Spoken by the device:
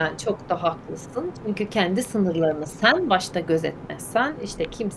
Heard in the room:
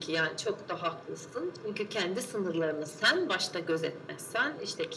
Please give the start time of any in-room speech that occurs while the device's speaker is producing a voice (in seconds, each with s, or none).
none